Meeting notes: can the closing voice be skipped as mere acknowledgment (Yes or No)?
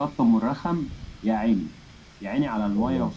Yes